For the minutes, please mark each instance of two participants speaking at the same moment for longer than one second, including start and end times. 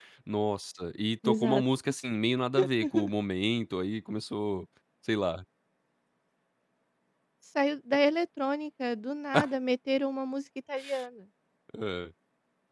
none

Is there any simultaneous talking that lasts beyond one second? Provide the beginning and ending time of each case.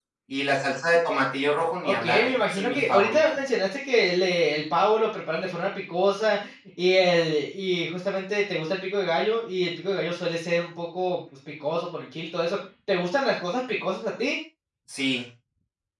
1.9-3.2

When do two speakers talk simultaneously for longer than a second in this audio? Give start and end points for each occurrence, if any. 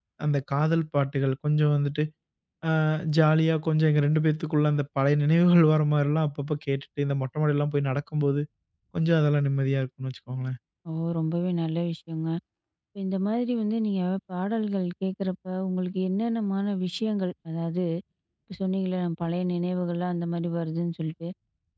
none

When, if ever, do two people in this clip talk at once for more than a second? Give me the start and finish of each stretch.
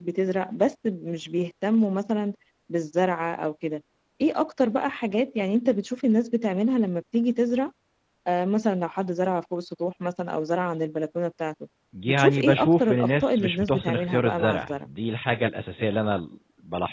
12.1-14.7

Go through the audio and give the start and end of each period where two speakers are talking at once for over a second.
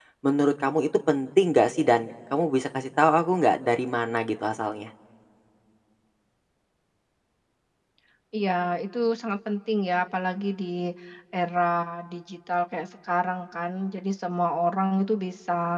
none

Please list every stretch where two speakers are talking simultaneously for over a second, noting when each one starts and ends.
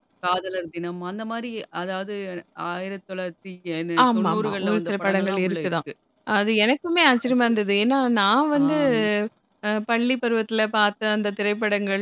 4.0-5.7

